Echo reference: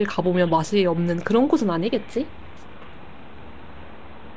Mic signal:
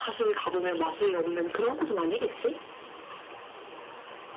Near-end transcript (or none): none